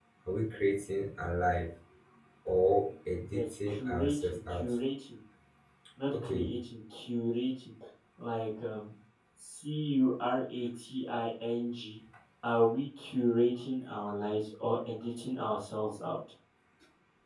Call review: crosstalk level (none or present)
present